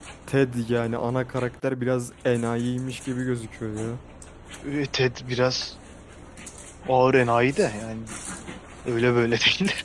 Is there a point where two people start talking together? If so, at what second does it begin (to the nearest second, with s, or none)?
none